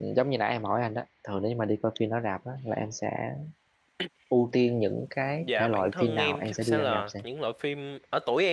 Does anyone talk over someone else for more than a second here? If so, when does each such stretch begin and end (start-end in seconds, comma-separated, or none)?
5.4-7.2